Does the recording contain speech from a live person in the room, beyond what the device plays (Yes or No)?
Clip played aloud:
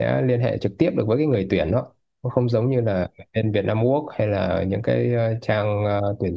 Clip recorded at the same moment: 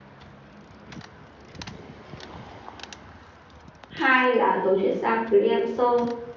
Yes